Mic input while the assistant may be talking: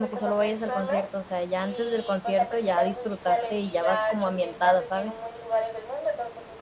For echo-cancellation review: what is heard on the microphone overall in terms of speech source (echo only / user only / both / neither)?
both